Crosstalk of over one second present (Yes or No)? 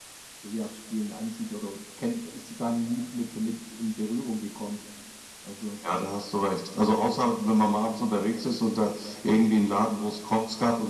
No